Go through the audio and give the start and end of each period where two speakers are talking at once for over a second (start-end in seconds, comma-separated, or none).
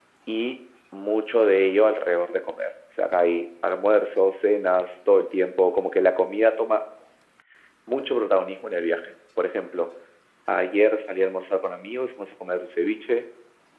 none